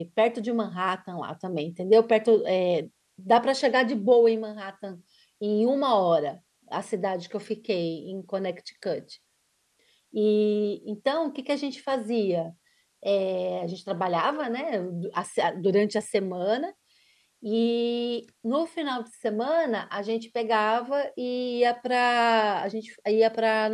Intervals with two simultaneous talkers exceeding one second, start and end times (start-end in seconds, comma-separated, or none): none